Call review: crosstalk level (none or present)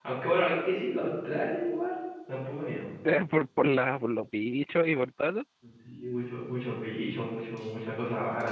none